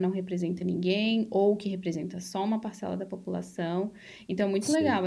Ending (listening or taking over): listening